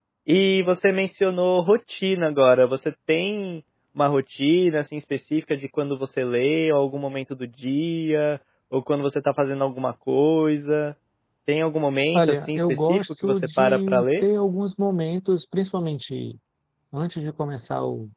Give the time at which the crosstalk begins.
12 s

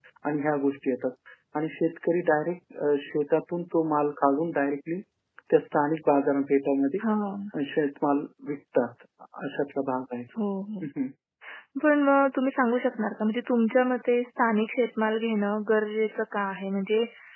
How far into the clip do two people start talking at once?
none

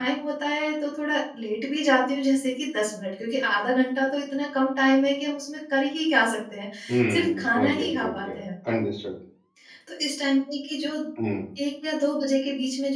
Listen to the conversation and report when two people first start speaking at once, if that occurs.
7 s

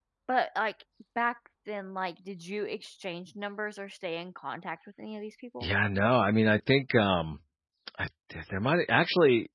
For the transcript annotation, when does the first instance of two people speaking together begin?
none

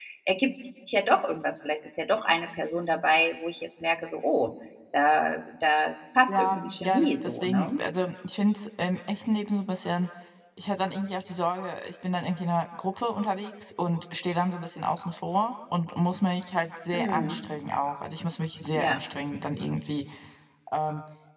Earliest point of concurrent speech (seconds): 6 s

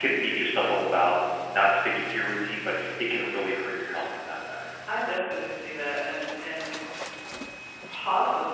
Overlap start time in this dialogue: none

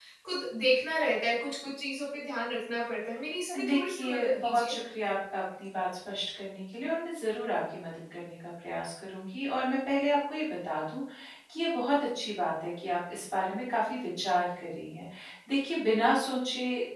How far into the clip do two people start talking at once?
3 s

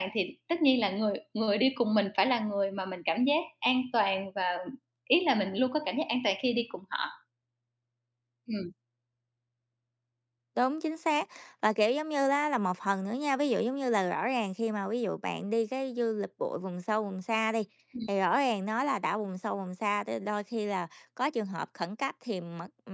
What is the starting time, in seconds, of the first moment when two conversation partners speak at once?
none

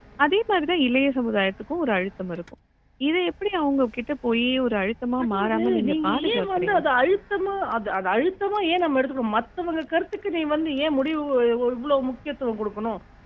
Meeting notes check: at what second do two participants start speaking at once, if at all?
5 s

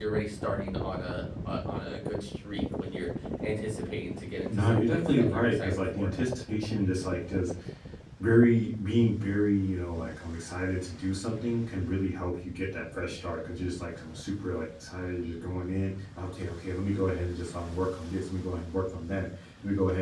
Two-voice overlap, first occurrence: 4 s

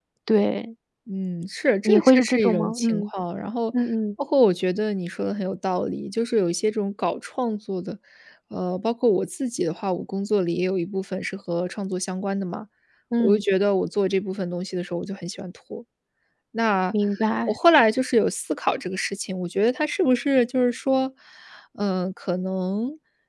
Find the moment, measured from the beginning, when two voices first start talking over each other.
2 s

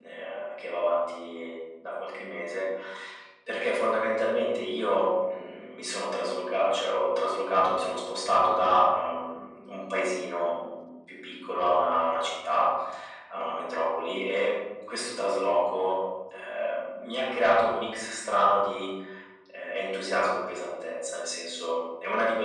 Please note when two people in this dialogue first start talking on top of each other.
none

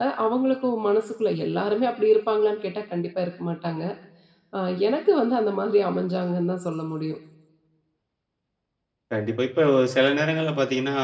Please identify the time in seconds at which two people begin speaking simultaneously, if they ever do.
none

